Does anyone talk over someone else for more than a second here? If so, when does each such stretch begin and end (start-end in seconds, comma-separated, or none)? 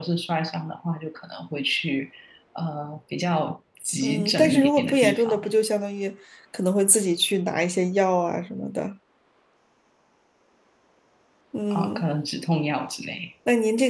4.0-5.4